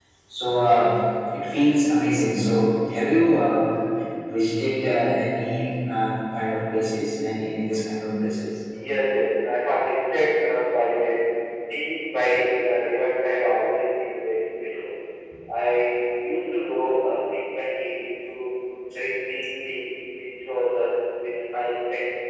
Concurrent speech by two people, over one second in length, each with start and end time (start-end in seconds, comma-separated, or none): none